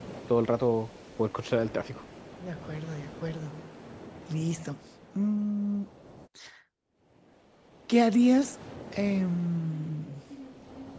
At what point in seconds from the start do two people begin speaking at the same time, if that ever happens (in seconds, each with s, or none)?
none